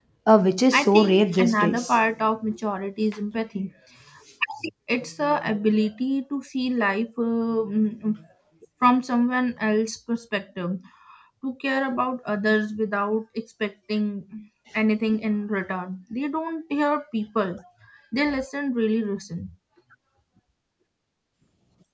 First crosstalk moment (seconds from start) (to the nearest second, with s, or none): 1 s